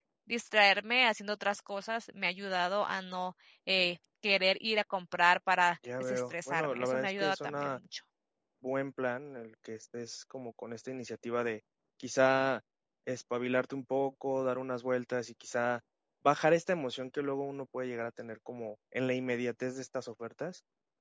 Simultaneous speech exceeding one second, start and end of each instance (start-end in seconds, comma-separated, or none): 6.0-7.7